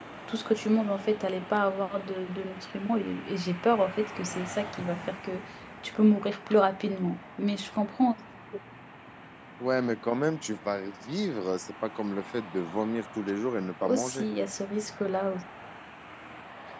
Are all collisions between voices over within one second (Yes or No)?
Yes